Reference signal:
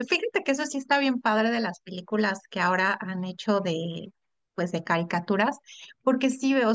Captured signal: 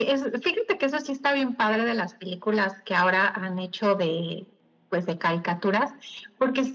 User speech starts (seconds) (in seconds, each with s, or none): none